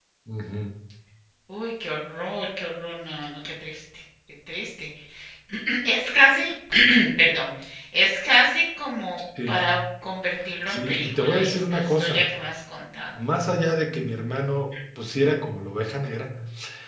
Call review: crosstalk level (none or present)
present